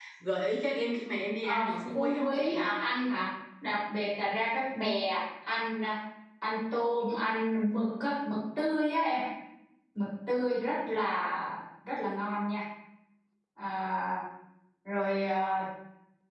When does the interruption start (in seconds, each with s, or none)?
1.4 s